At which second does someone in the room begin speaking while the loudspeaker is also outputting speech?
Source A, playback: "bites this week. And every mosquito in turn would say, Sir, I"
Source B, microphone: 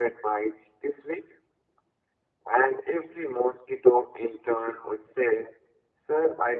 none

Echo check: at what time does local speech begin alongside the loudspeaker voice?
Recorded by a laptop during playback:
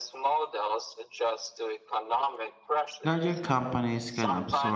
3.0 s

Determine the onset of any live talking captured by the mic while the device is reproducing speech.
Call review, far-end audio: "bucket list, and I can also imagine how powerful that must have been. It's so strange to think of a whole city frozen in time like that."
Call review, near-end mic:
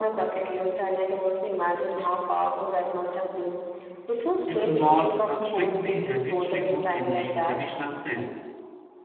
4.5 s

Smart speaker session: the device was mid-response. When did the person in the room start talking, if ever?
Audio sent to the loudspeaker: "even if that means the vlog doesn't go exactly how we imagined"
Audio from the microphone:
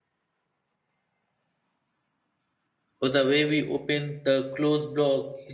3.0 s

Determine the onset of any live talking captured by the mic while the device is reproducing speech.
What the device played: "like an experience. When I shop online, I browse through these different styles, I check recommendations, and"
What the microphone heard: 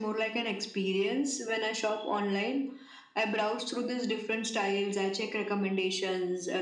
none

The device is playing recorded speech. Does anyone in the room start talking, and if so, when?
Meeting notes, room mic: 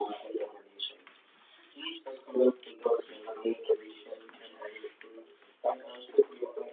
none

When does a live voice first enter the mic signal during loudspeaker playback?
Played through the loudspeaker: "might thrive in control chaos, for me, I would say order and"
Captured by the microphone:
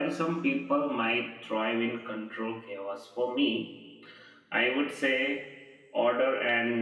none

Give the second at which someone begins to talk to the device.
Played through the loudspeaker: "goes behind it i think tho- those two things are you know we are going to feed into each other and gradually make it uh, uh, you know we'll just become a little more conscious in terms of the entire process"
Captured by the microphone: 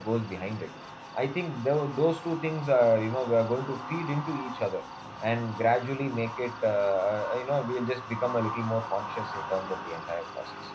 none

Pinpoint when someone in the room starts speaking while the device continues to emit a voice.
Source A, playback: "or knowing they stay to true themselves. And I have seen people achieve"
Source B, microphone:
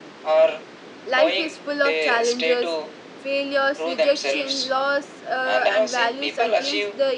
1.0 s

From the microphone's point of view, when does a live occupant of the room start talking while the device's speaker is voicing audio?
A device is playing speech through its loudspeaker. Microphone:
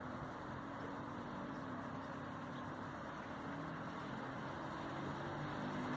none

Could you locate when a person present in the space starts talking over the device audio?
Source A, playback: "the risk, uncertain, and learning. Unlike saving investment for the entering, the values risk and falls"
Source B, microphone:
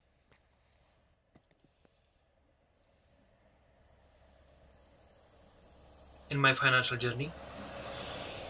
6.3 s

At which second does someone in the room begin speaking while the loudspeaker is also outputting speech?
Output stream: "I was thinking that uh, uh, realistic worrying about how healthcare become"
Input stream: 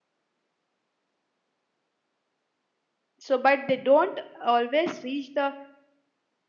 3.2 s

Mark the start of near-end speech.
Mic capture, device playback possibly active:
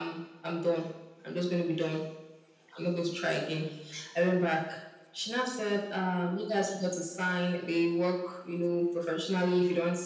none

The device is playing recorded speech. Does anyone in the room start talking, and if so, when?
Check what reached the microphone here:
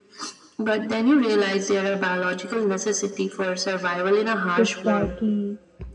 4.5 s

